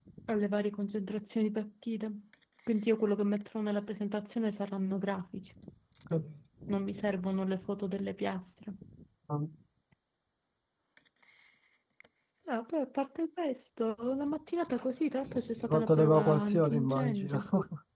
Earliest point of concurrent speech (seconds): 15.6 s

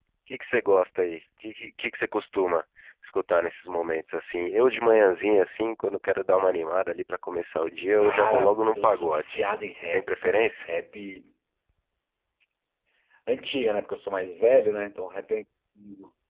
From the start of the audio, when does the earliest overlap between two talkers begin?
8.0 s

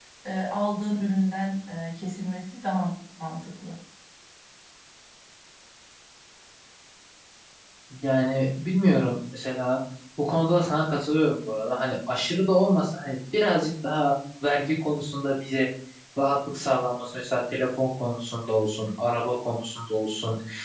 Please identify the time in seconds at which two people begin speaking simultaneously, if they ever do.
none

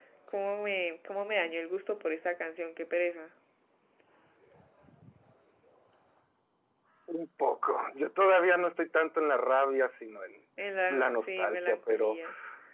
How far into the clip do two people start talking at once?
10.9 s

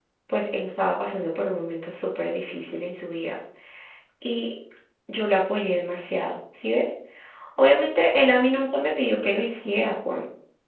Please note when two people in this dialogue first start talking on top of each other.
none

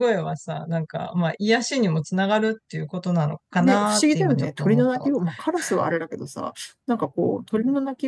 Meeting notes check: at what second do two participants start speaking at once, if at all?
3.6 s

